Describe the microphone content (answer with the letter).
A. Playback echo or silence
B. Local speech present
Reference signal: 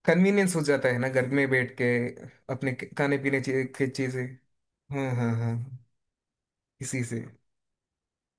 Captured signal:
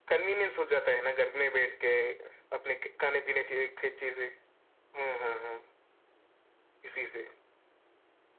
A